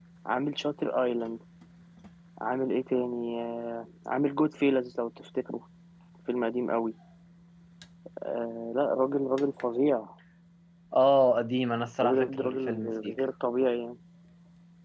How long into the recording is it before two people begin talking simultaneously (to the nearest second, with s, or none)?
12 s